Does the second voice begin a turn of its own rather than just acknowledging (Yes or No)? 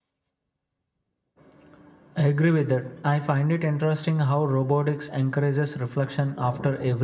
No